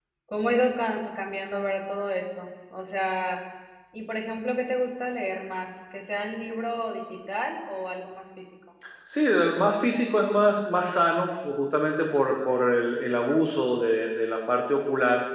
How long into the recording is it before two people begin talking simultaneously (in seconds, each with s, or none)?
none